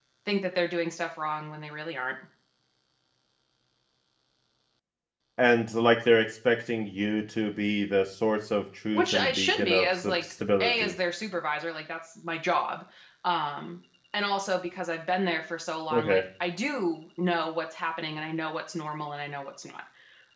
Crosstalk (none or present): present